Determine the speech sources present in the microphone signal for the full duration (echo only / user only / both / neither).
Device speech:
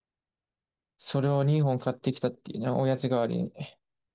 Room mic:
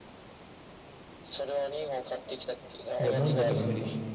both